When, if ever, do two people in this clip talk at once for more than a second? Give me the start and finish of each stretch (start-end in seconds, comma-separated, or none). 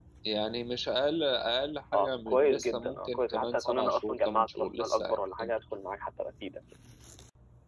1.9-5.5